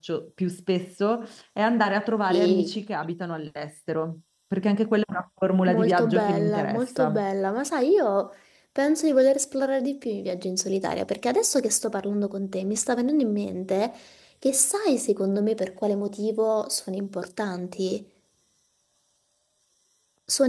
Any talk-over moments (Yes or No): Yes